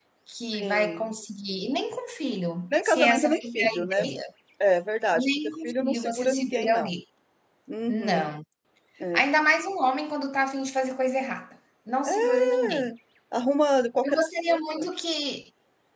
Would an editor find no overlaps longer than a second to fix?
No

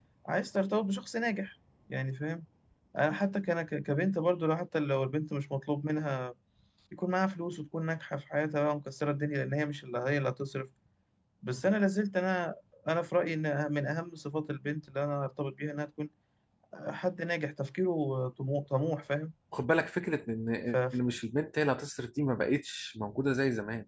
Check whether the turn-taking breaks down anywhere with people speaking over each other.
No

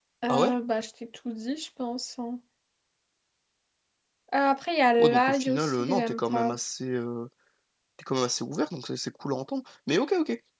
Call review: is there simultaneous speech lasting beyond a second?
Yes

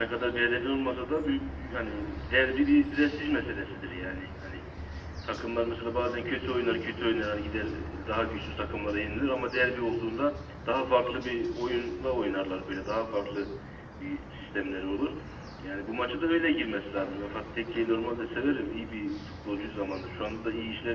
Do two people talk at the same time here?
No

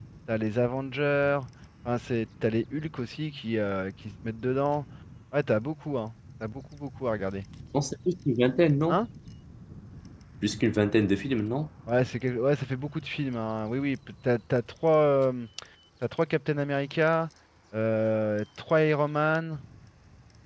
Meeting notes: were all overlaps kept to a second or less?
Yes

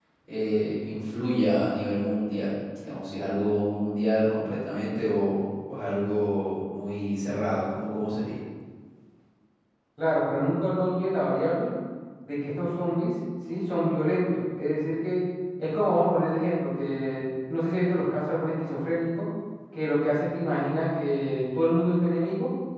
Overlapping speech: No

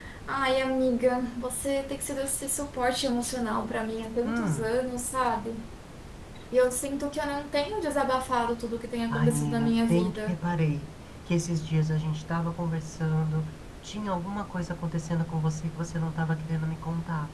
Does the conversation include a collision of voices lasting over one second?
Yes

